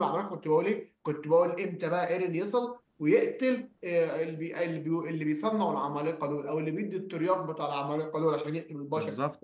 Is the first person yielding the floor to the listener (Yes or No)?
No